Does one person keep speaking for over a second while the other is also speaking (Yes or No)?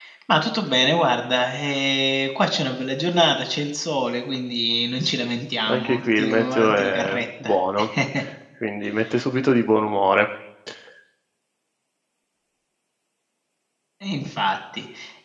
Yes